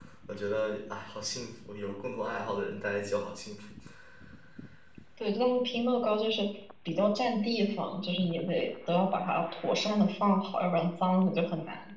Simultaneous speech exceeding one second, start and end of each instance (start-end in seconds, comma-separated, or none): none